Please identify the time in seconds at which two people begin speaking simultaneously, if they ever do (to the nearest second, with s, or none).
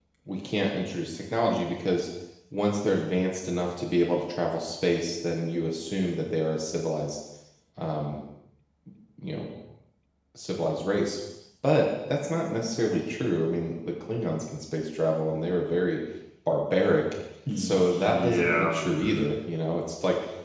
17 s